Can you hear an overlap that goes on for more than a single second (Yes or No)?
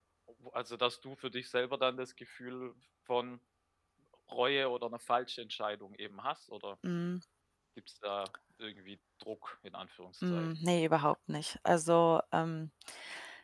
No